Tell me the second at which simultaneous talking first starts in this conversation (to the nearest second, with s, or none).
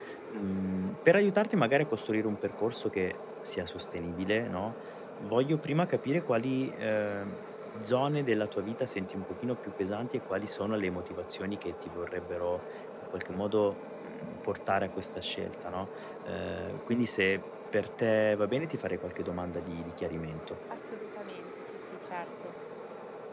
none